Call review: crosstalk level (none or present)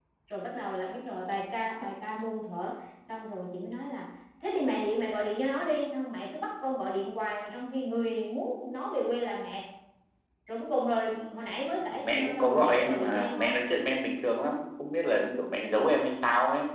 present